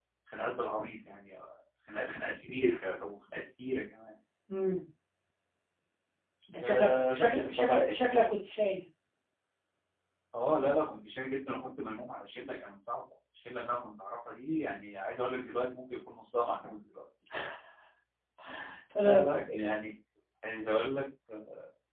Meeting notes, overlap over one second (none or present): present